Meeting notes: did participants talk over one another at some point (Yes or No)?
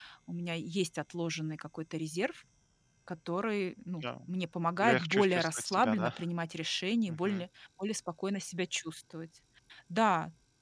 Yes